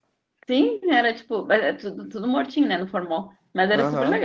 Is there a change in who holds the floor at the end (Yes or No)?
Yes